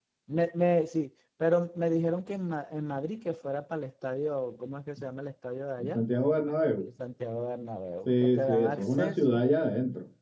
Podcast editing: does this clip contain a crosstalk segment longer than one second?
Yes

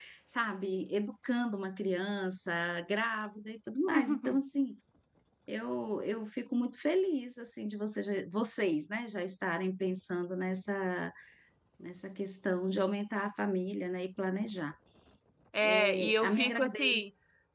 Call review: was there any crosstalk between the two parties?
Yes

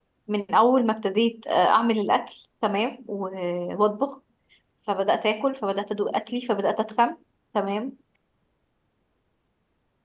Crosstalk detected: No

